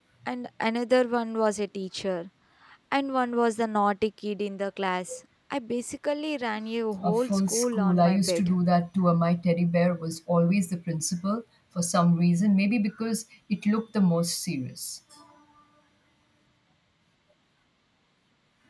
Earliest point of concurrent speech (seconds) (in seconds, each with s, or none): 7.0 s